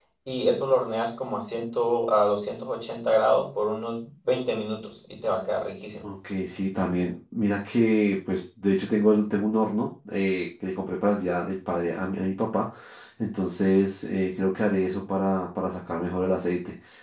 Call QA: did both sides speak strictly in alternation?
Yes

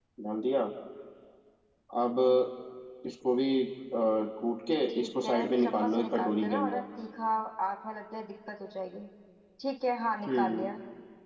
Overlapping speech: Yes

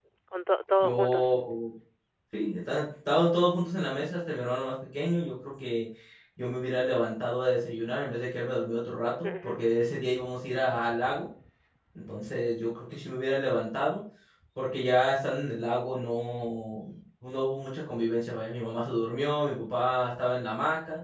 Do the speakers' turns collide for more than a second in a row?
No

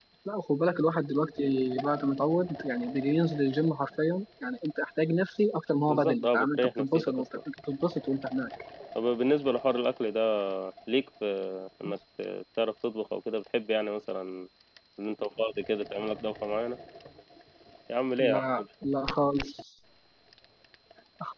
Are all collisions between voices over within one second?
No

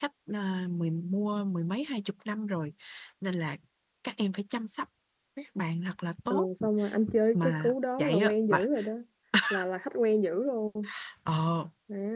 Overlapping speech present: Yes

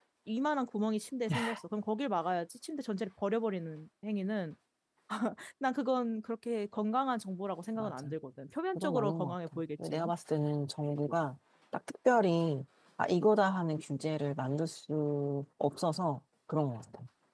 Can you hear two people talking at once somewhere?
Yes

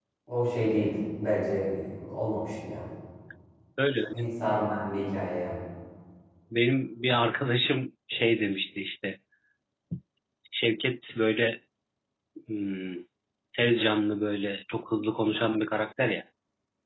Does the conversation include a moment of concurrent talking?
No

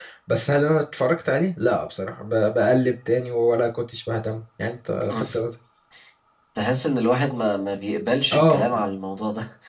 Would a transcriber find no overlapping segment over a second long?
Yes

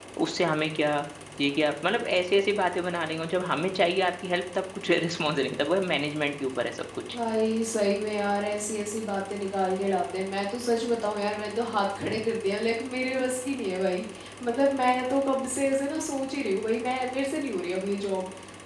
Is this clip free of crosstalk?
Yes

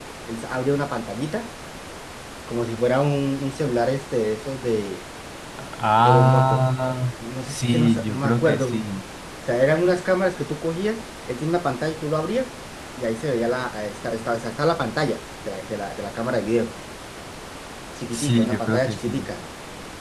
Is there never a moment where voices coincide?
No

